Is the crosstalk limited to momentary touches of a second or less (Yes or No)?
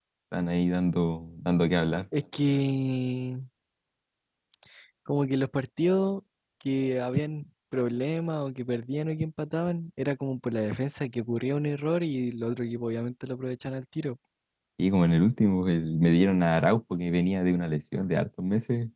Yes